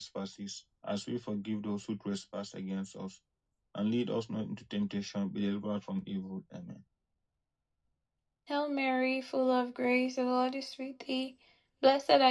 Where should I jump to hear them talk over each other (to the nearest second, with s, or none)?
none